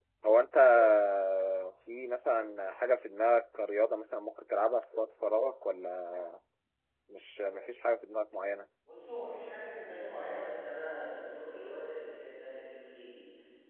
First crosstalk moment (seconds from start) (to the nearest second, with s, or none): none